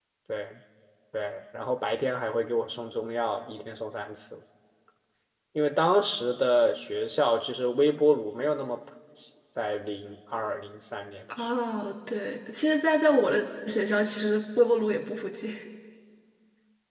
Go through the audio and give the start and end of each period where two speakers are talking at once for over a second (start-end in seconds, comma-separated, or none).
none